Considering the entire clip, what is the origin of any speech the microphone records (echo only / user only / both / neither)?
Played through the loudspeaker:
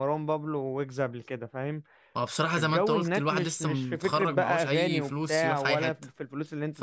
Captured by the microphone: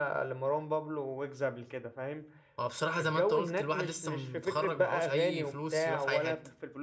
echo only